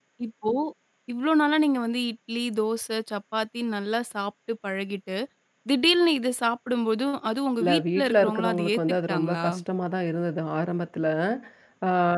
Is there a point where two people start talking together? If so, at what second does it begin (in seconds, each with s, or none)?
7.6 s